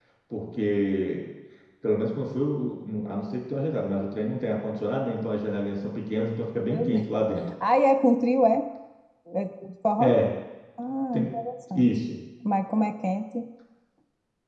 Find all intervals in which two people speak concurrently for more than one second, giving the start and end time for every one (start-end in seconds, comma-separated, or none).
none